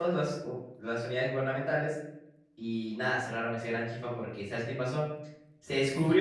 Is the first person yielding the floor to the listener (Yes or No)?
No